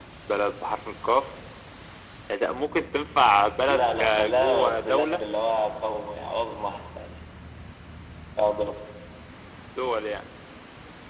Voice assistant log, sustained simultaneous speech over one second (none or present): present